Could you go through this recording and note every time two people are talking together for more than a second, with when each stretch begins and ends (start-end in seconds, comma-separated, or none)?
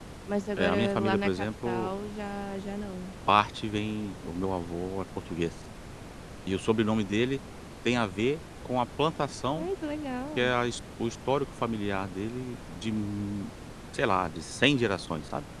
0.6-1.9